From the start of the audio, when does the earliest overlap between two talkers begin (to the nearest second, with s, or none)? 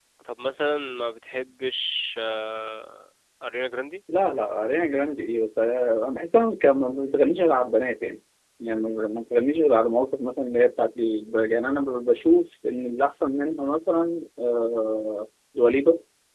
none